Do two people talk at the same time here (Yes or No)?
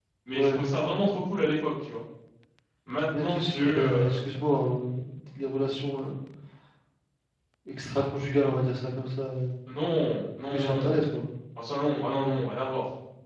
Yes